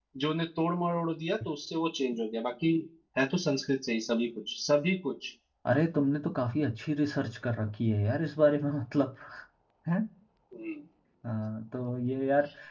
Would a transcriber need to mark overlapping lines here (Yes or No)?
No